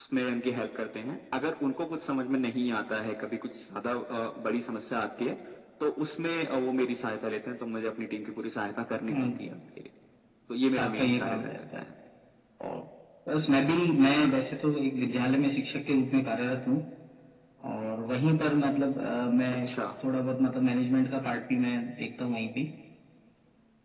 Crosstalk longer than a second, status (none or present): present